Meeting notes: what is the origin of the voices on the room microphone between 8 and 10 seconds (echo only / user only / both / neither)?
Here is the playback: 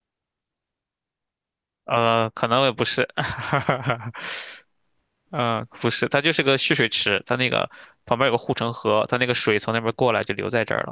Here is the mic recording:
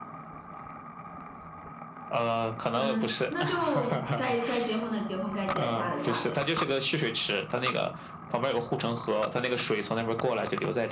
echo only